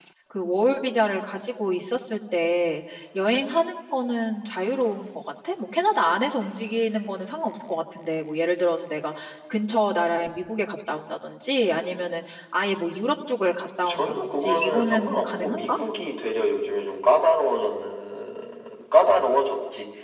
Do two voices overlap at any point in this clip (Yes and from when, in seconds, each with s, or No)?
Yes, from 13.9 s